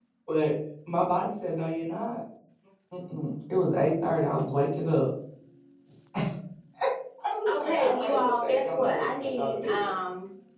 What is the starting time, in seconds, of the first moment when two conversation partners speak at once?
7.5 s

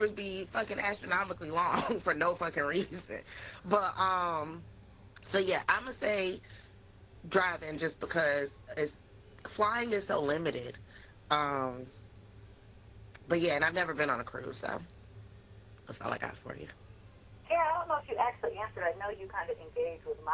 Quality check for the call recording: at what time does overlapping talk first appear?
none

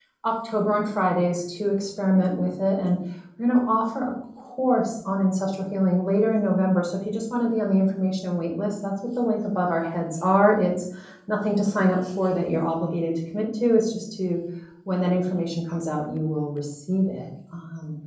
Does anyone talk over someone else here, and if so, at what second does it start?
none

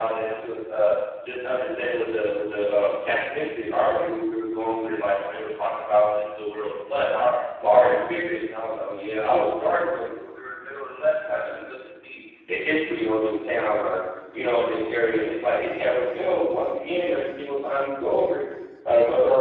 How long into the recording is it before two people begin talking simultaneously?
none

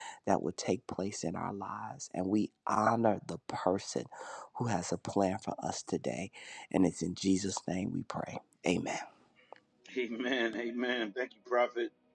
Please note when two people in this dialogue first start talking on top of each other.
none

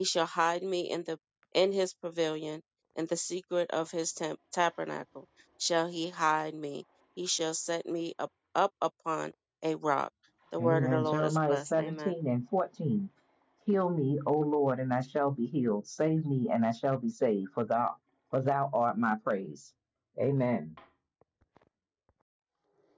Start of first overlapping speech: 10.6 s

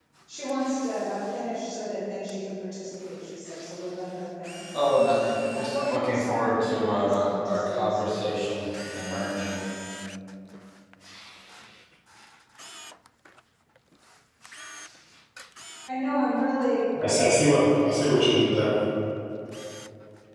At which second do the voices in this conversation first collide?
5.5 s

